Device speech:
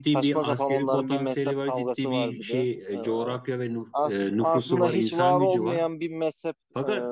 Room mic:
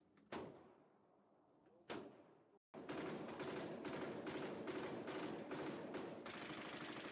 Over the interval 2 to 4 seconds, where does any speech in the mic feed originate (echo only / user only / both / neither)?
neither